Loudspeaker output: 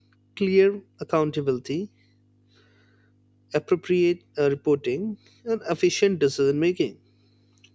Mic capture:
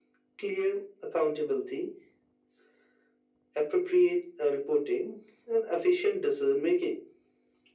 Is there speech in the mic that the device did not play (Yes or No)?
No